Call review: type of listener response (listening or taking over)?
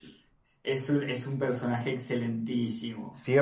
taking over